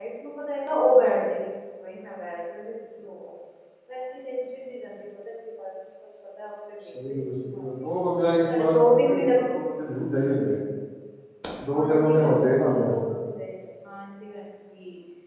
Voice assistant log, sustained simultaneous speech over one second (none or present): present